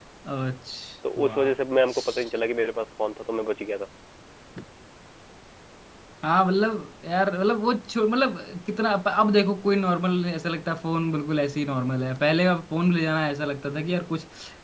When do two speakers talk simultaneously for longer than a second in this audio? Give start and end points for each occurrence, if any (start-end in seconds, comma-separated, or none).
none